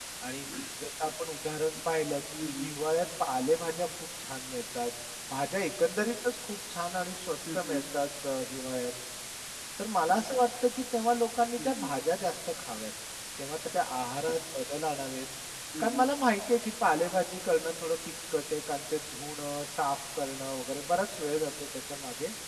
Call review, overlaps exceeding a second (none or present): none